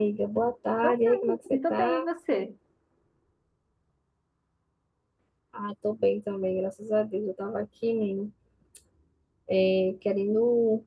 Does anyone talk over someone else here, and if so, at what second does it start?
1 s

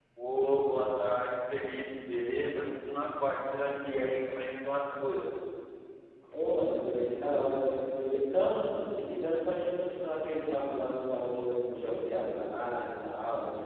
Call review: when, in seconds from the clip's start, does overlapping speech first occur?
none

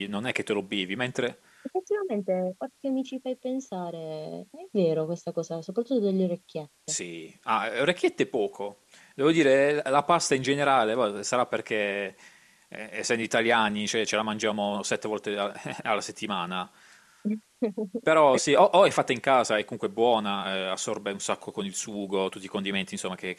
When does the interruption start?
none

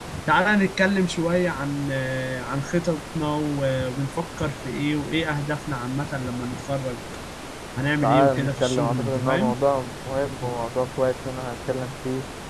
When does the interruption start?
8 s

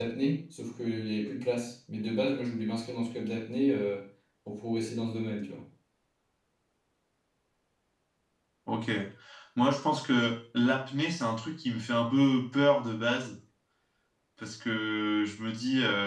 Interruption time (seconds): none

